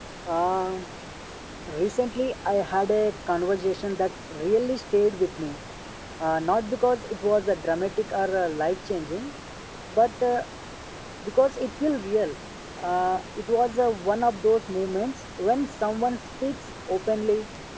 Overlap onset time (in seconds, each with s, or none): none